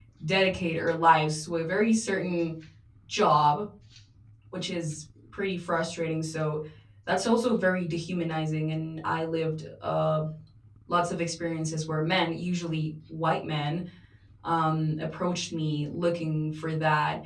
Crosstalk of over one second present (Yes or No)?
No